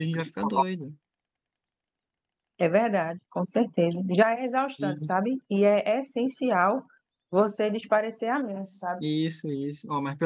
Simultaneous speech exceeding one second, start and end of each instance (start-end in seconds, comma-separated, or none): none